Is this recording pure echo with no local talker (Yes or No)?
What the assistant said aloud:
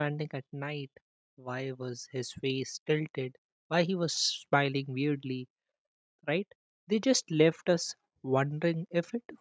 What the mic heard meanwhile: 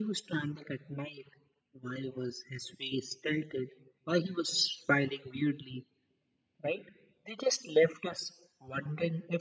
Yes